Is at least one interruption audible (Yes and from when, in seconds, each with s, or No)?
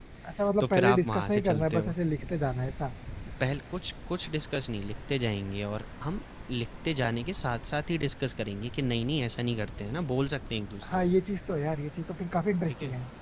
Yes, from 0.6 s